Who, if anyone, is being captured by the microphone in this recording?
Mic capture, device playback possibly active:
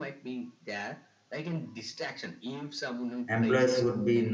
both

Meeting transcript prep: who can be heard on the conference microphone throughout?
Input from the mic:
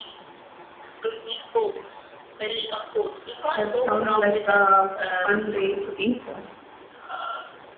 both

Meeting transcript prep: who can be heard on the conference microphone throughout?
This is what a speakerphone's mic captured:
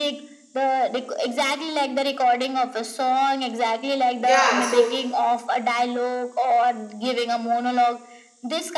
both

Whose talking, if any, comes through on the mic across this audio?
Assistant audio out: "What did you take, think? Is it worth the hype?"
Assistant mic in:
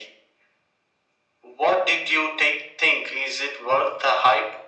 echo only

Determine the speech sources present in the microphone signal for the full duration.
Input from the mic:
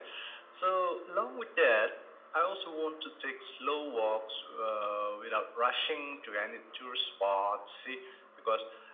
echo only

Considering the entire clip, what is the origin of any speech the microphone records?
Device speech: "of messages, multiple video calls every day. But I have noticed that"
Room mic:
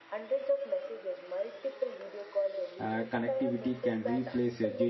both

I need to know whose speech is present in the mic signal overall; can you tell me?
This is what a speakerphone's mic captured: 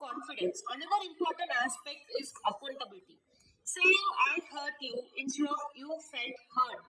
echo only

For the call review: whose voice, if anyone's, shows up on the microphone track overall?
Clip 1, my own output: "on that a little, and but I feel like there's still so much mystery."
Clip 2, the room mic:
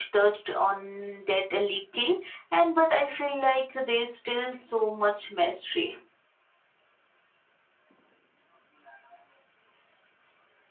echo only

